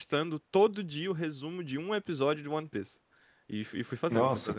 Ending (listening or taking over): listening